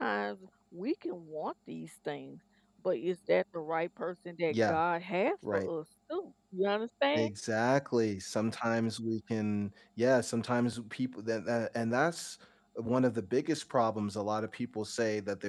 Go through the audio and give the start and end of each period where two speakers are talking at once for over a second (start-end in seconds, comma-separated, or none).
none